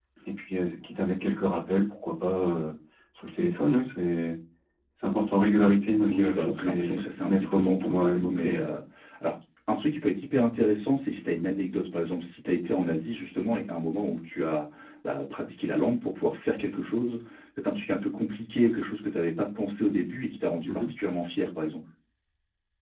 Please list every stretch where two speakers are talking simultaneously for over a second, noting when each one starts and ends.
6.1-8.6

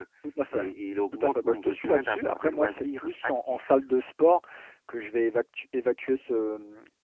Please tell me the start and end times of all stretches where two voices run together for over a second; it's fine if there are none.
1.1-3.8

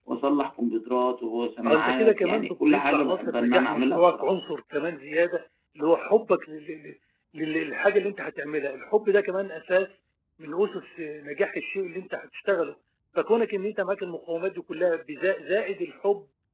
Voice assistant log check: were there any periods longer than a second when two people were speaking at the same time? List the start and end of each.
1.6-4.3

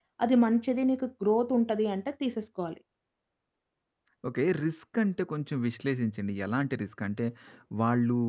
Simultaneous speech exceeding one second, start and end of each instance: none

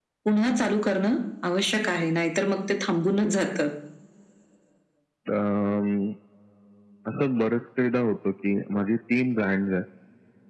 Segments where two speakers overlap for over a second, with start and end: none

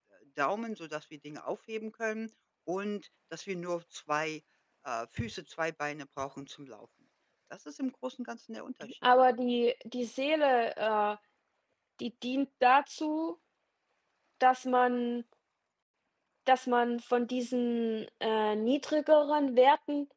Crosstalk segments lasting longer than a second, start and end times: none

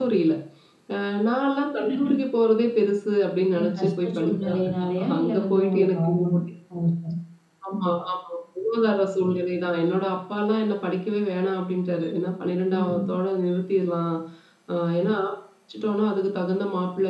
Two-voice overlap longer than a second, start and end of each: 3.6-6.3

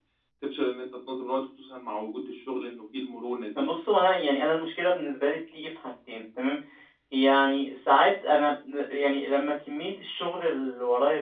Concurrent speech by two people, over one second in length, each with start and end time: none

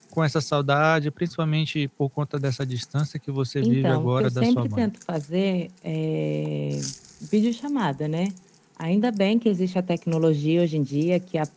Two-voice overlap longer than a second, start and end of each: 3.6-4.9

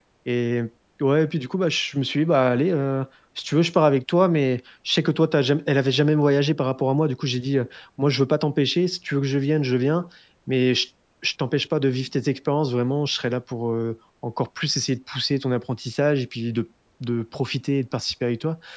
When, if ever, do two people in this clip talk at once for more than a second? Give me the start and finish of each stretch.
none

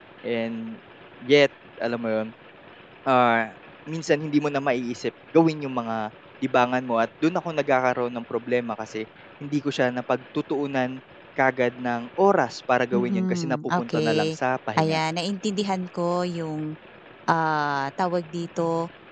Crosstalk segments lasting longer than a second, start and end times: 12.9-14.3

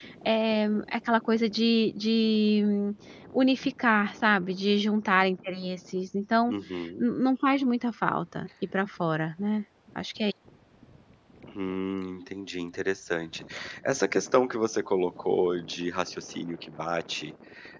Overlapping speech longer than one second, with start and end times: none

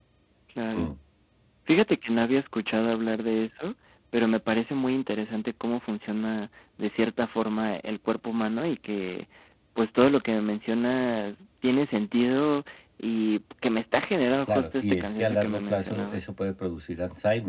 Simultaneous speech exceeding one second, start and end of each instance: 14.5-16.2

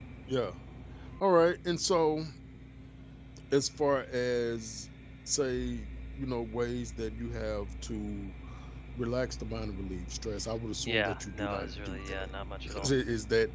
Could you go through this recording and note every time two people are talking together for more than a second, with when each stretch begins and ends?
10.8-12.3

